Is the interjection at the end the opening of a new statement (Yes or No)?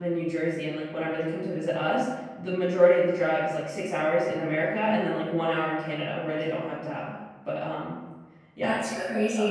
Yes